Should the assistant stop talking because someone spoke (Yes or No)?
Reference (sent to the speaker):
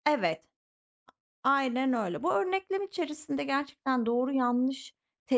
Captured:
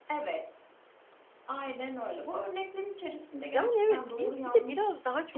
Yes